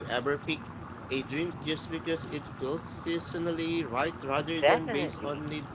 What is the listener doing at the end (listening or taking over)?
taking over